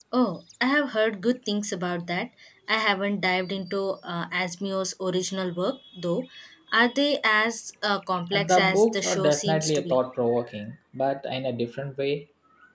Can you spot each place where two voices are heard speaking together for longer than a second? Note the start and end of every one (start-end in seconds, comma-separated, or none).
8.3-10.0